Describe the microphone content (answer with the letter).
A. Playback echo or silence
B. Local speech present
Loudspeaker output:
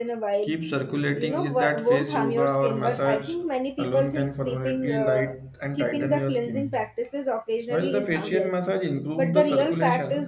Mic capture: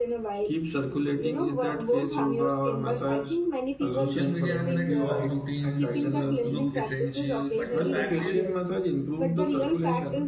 B